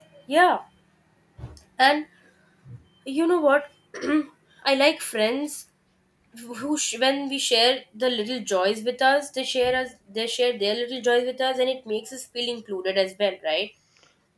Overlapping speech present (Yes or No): No